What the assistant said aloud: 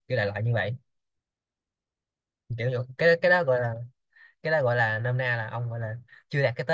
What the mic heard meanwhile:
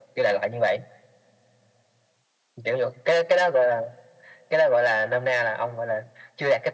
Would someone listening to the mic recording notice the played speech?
Yes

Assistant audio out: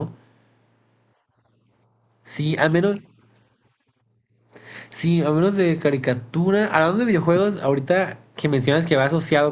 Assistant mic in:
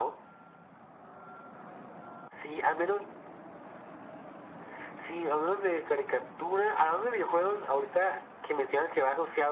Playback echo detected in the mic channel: Yes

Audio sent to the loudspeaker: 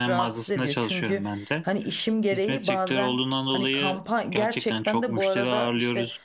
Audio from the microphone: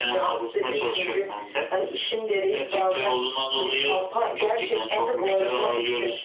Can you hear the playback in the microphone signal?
Yes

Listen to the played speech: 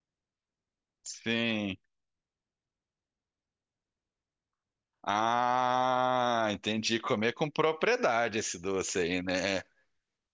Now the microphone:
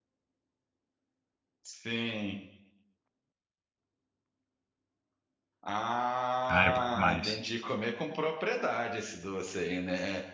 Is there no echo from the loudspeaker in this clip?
No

